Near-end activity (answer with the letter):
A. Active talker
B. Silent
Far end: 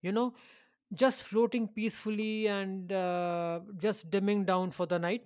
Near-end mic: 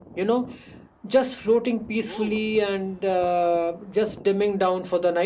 A